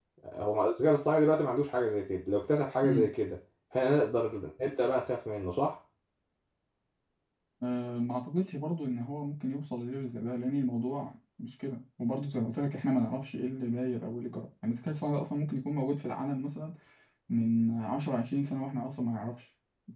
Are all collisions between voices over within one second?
Yes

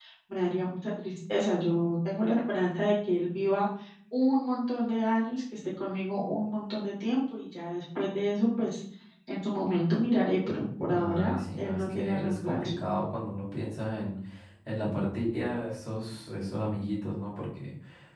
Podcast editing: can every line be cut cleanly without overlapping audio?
No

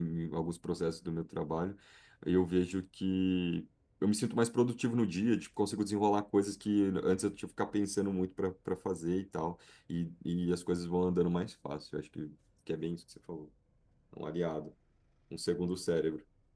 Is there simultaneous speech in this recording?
No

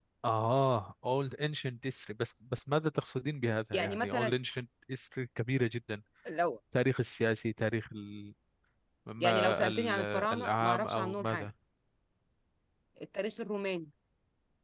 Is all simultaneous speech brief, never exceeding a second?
No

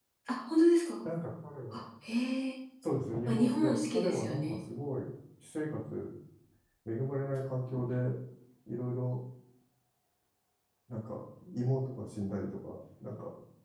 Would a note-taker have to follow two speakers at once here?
Yes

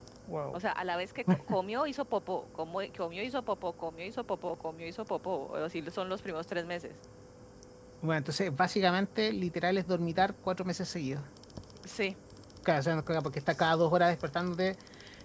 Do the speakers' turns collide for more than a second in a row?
No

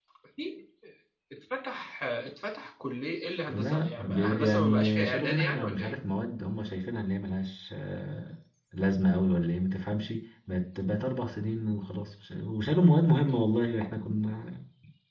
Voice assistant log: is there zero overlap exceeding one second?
No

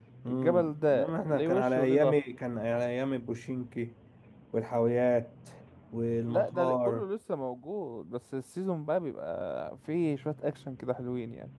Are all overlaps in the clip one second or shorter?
No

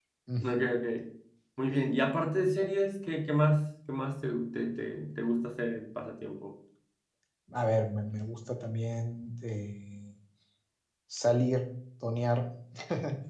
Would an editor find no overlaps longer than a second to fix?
Yes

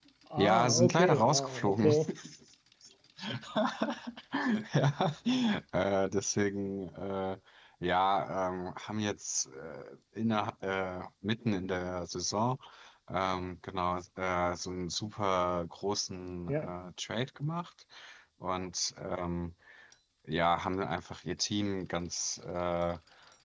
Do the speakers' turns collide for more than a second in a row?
Yes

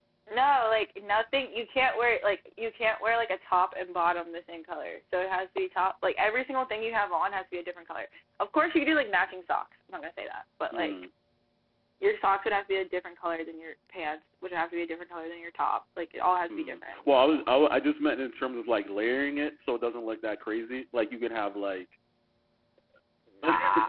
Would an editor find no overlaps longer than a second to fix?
Yes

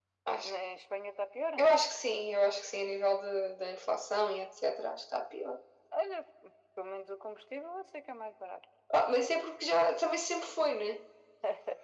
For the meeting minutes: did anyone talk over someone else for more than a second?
No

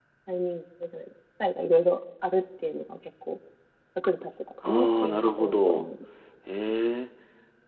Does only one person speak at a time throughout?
No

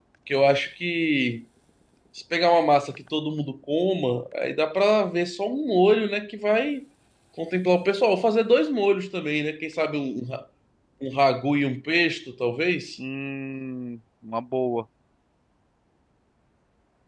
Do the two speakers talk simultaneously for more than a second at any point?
No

